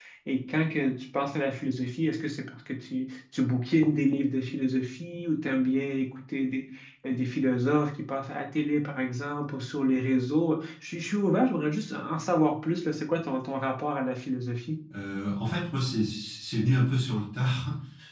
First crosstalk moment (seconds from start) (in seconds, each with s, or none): none